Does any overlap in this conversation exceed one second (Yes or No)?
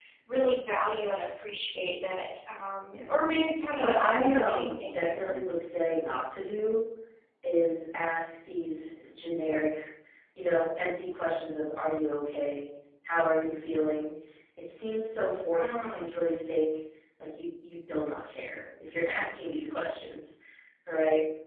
Yes